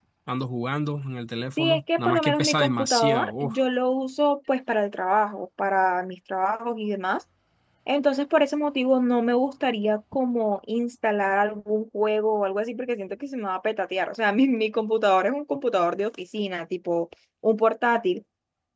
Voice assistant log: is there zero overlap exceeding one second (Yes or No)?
No